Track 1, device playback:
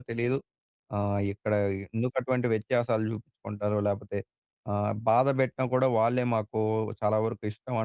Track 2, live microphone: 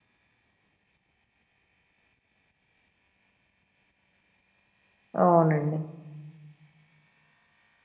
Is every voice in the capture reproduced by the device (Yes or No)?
No